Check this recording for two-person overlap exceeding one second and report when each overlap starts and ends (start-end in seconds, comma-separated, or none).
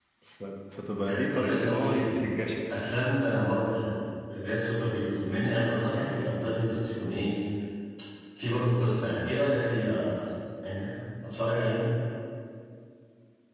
1.0-2.2